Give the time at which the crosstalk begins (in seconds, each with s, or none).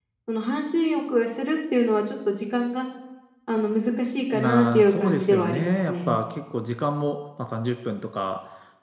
4.3 s